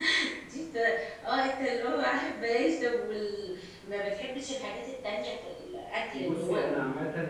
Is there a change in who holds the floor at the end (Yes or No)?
Yes